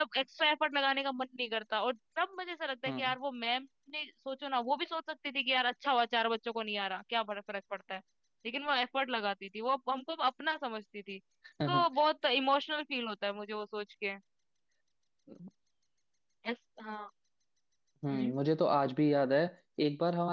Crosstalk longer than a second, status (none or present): none